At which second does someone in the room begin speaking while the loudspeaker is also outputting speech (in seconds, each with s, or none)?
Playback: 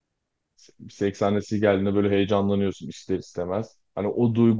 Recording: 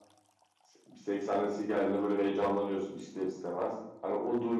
none